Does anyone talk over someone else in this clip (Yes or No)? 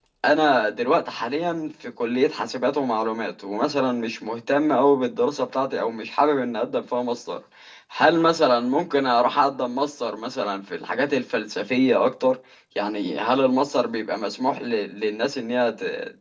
No